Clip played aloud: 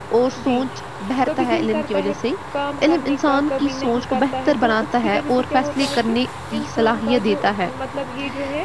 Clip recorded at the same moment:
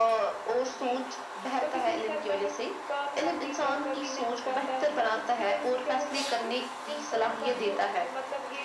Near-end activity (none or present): none